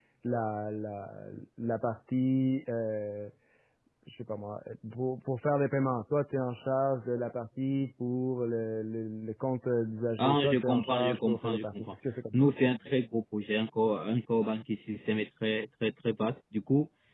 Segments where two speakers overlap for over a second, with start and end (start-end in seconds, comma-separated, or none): 10.2-11.9